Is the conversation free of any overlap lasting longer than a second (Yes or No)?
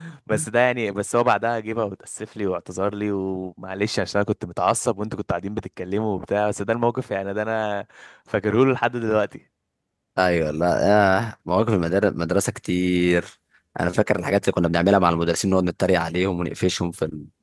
Yes